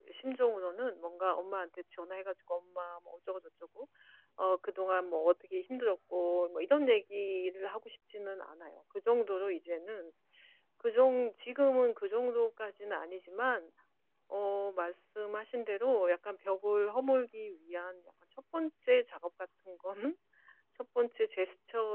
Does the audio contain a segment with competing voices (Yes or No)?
No